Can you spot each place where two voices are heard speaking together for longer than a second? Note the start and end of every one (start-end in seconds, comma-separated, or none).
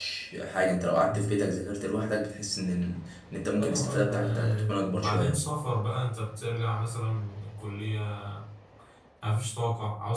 3.6-5.4